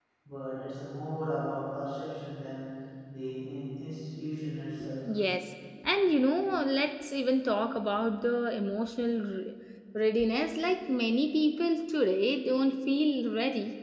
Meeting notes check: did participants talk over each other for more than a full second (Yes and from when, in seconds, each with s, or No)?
No